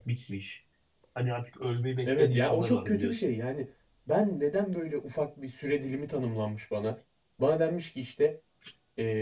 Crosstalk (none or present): present